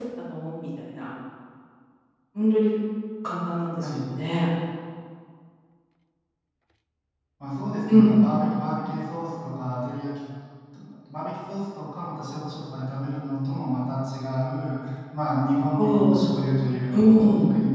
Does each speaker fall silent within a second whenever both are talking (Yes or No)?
Yes